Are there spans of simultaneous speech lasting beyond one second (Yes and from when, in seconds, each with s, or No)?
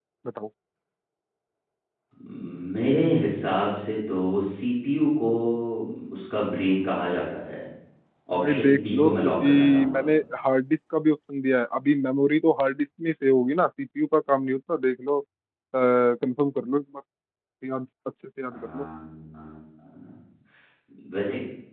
Yes, from 8.4 s